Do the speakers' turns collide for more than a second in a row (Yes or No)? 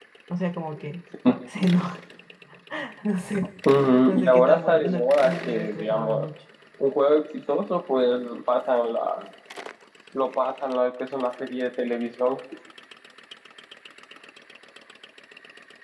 Yes